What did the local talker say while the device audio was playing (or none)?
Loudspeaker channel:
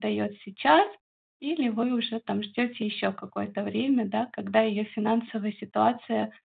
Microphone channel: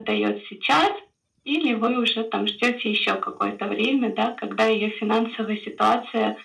none